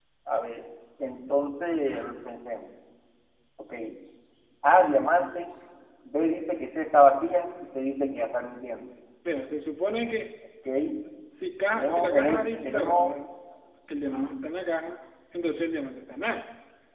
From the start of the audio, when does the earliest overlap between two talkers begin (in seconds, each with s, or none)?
11.7 s